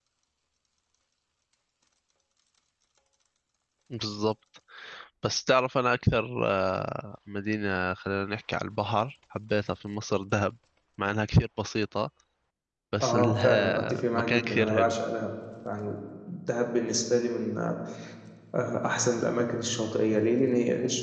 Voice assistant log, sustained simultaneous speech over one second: present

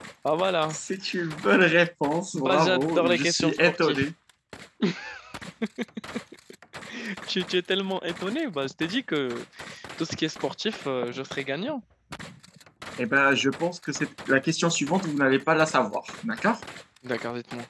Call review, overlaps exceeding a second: present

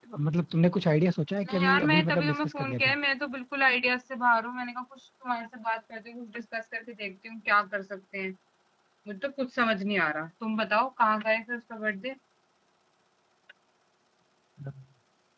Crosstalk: present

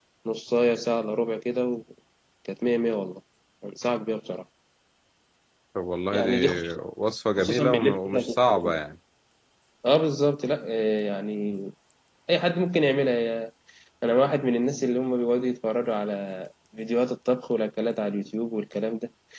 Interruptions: present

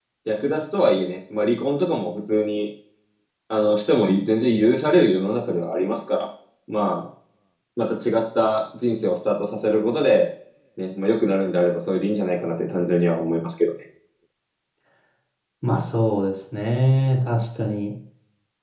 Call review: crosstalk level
none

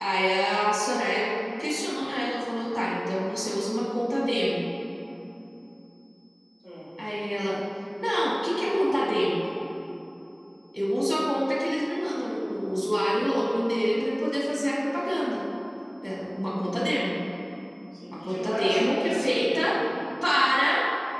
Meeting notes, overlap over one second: present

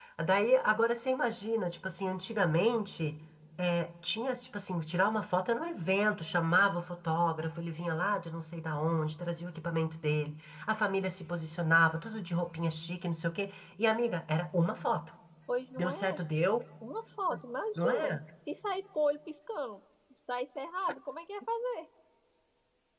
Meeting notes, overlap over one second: none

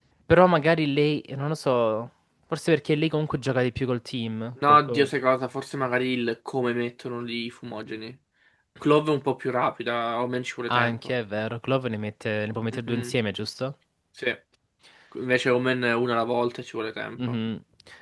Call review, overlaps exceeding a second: none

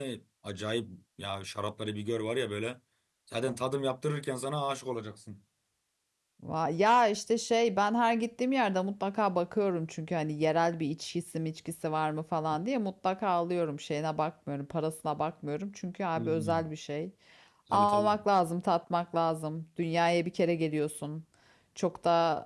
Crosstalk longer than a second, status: none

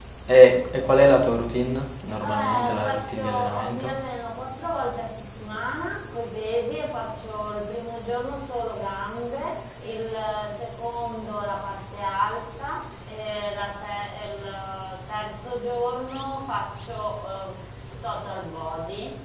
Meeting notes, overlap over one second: present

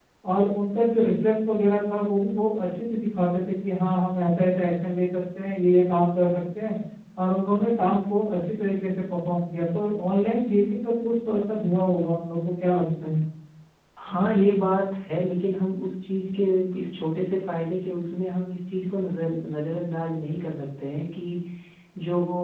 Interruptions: none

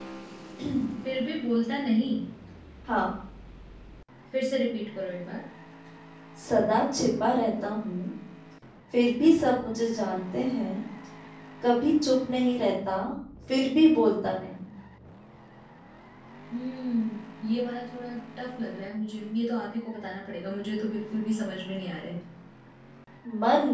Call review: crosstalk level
none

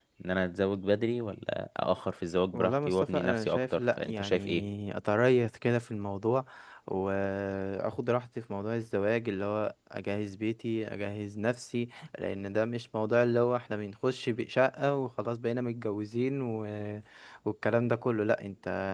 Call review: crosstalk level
present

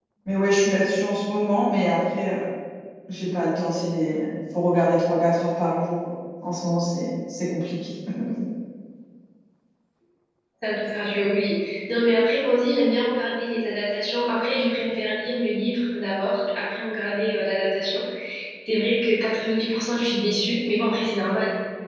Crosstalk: none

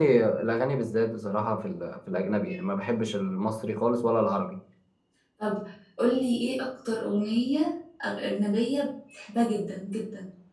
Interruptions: none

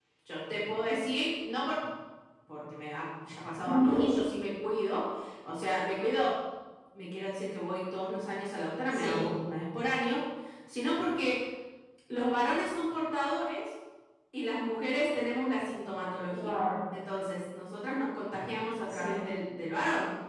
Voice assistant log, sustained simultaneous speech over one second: none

